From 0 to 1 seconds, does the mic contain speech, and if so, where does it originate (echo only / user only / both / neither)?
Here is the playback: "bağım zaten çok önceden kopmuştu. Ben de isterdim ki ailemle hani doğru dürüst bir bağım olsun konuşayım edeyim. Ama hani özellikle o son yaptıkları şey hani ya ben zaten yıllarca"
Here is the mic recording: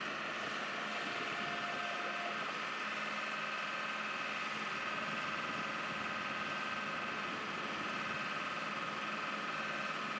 neither